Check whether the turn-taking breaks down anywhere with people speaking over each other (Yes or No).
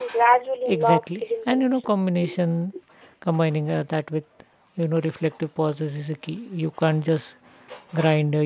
Yes